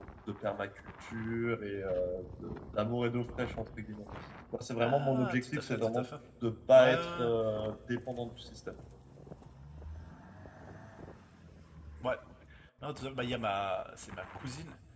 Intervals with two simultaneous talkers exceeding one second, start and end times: 4.8-6.0

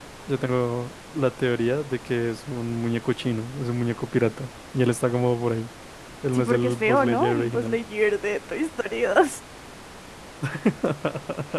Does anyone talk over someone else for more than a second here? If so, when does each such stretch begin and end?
6.3-7.8

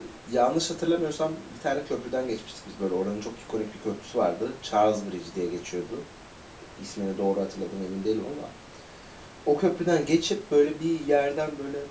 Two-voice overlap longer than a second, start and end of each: none

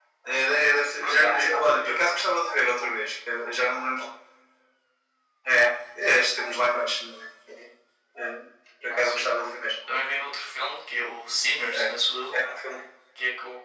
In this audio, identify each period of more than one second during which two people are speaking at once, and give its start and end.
1.0-2.3

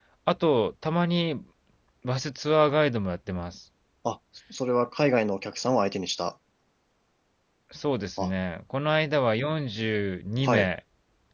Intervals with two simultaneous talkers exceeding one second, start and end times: none

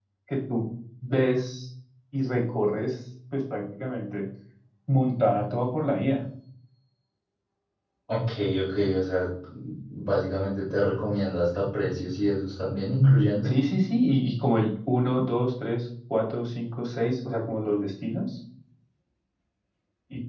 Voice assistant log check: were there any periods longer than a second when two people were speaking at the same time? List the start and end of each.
none

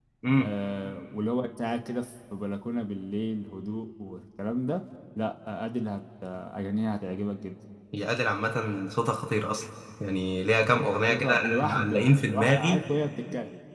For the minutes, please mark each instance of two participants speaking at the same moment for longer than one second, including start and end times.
11.1-12.8

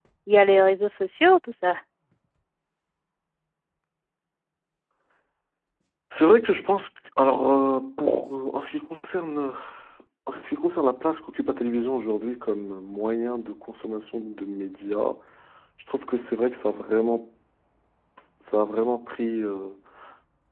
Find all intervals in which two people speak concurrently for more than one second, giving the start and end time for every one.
none

